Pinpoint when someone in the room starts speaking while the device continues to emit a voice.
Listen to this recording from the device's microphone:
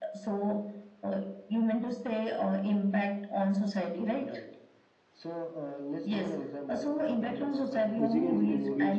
8.0 s

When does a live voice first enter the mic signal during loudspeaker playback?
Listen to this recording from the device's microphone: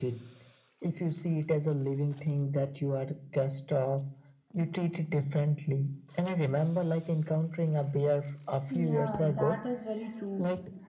8.7 s

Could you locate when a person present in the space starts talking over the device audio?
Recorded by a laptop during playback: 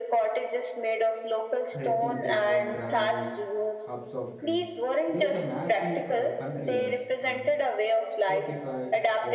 1.7 s

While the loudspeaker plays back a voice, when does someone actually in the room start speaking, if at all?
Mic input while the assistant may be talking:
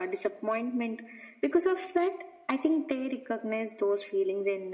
none

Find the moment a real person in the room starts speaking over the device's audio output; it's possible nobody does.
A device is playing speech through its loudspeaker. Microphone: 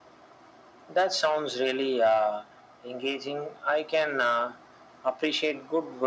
none

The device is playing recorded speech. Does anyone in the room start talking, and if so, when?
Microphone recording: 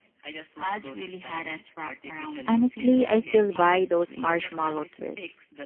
2.5 s

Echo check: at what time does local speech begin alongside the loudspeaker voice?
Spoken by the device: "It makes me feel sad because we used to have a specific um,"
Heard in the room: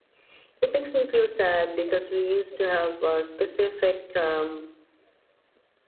none

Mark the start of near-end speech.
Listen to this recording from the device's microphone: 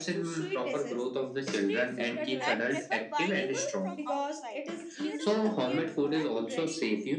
2.4 s

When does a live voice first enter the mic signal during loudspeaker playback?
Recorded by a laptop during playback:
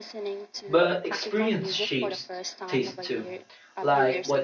0.6 s

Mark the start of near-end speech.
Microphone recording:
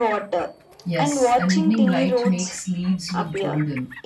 0.8 s

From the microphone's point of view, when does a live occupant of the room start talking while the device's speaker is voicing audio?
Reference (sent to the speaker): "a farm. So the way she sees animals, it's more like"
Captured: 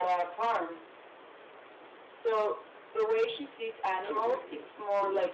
4.1 s

